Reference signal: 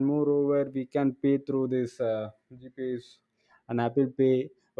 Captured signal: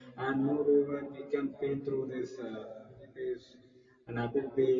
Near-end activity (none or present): none